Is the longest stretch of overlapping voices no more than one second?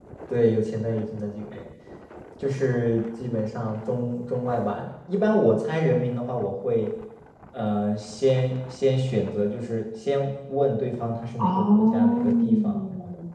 No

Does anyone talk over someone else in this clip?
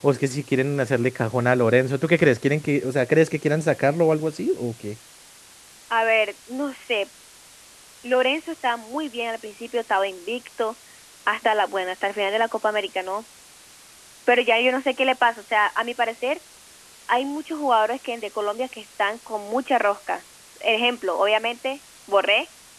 No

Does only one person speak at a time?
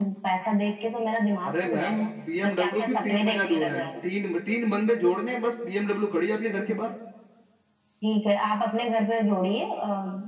No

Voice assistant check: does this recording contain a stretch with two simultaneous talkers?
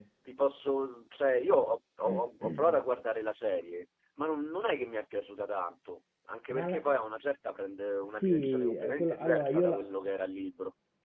Yes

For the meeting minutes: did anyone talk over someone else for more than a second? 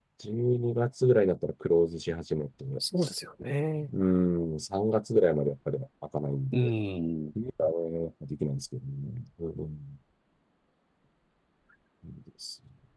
No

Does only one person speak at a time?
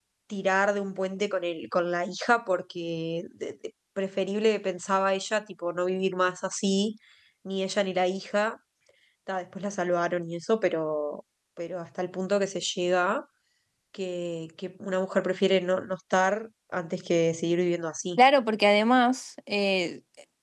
Yes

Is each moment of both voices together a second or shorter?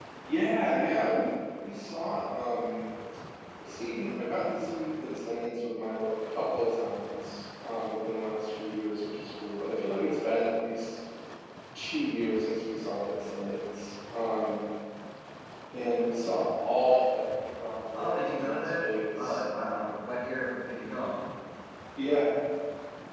No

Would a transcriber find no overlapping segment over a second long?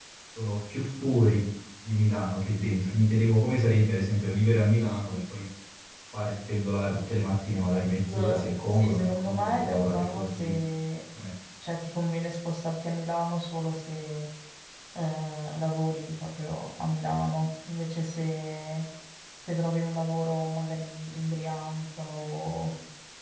No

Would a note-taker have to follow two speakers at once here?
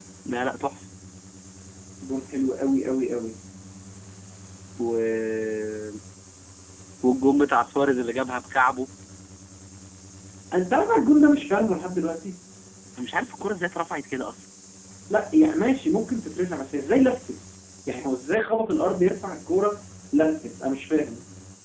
No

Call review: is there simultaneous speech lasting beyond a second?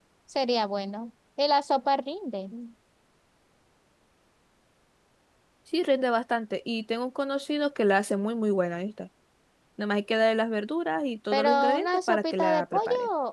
Yes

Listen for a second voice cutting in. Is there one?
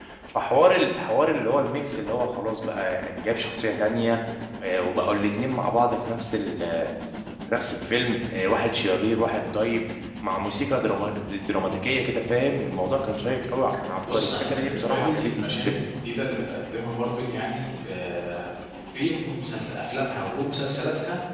Yes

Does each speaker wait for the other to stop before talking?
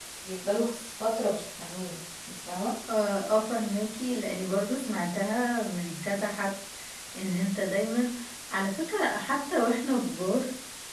Yes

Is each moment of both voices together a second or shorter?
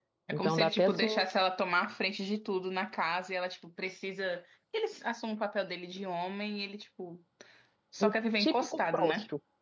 No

